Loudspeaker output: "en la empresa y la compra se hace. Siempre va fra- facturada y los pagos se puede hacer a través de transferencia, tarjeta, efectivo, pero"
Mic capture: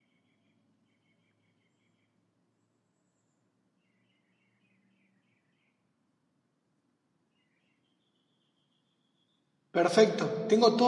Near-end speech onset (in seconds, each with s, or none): 9.7 s